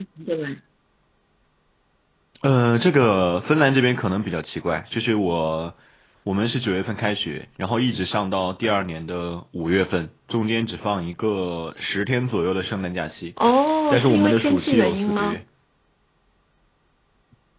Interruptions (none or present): present